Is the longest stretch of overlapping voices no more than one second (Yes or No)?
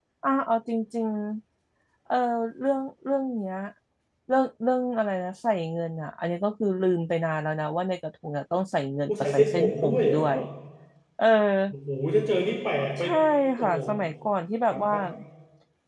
No